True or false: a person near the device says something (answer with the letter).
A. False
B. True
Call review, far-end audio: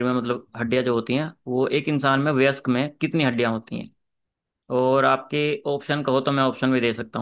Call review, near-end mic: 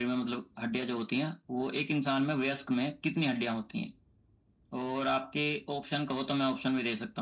A